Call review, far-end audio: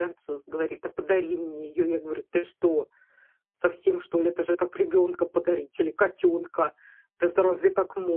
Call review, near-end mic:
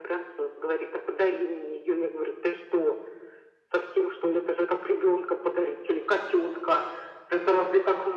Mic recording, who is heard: echo only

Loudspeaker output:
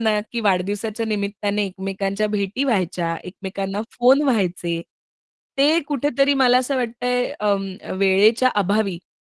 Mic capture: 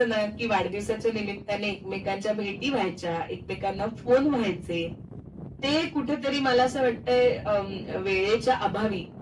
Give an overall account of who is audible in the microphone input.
echo only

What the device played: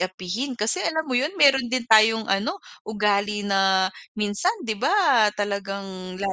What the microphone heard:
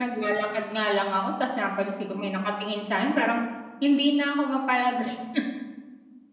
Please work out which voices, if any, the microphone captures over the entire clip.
user only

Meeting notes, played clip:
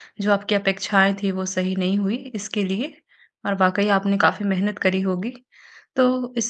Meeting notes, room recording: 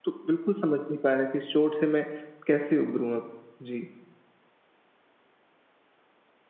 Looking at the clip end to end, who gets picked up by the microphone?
user only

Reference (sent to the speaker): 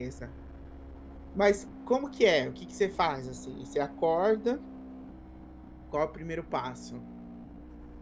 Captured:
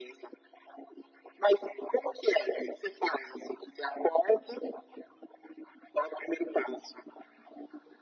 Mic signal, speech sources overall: echo only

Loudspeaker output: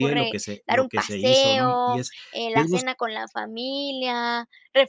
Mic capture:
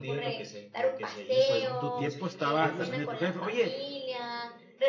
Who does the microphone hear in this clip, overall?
both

